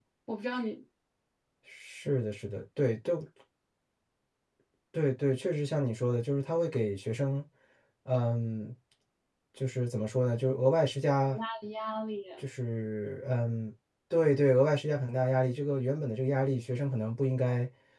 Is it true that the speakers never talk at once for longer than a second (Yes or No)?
Yes